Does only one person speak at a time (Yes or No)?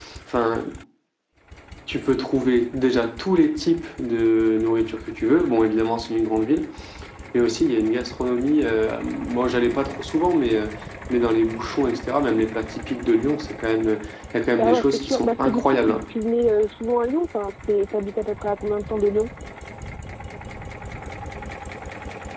No